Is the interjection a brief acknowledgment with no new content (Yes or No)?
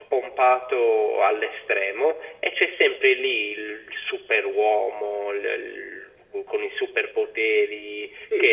No